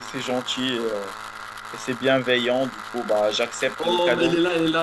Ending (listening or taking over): taking over